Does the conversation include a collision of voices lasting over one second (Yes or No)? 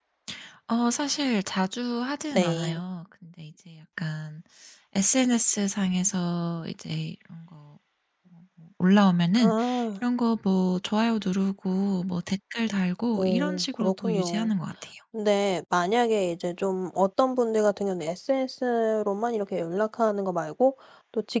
Yes